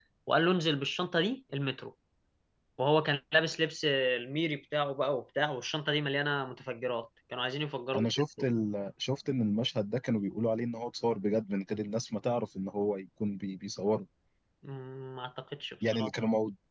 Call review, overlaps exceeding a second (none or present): none